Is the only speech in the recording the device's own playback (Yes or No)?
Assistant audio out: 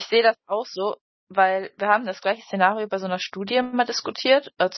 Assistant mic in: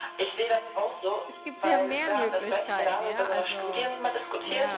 No